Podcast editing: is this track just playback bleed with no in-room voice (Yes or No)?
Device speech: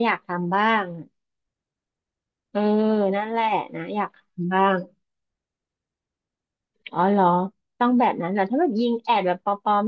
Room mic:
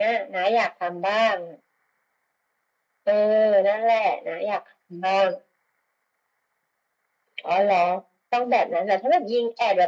Yes